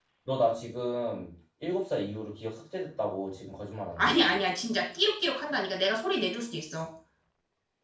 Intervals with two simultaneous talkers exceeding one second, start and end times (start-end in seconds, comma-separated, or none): none